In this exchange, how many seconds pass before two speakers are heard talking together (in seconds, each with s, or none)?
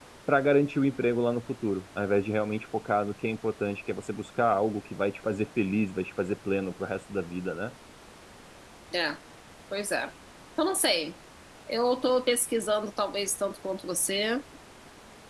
none